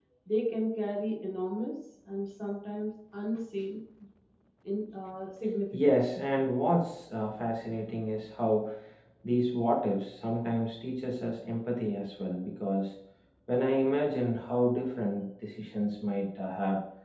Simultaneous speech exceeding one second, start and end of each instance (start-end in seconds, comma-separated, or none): none